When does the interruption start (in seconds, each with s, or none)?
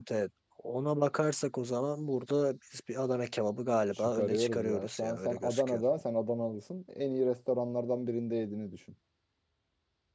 4.0 s